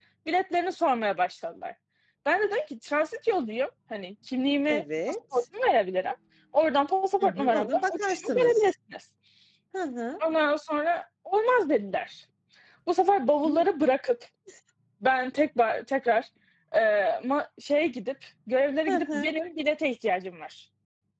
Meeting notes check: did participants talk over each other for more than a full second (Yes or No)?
Yes